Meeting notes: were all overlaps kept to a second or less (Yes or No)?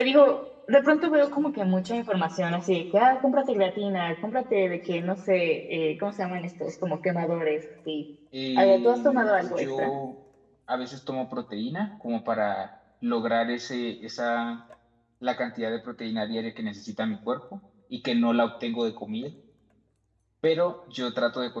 No